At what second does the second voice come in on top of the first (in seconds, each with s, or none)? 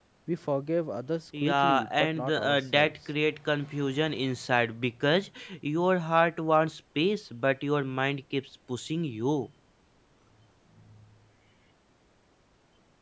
1.3 s